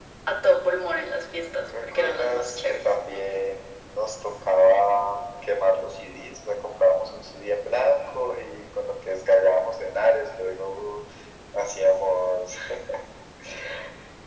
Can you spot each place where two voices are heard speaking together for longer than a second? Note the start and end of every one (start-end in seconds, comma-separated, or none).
1.6-2.9